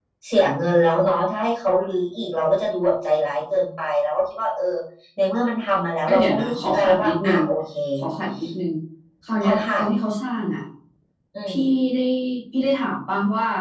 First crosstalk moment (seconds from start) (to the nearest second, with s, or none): 6 s